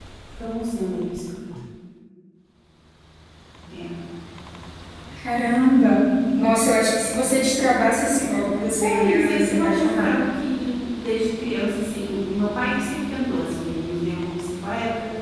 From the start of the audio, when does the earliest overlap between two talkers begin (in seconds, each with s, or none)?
8.8 s